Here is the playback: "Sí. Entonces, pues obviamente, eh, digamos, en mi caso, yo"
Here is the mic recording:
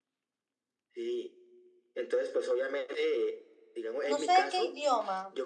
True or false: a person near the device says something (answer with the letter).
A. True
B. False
A